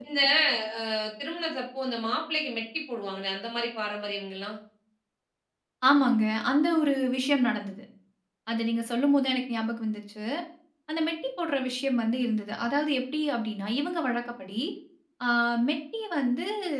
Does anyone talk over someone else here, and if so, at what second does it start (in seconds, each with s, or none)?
none